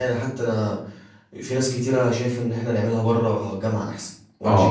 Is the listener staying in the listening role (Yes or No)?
No